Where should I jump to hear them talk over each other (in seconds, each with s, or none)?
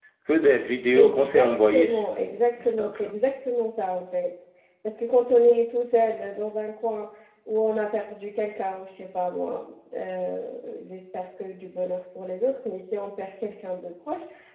0.9 s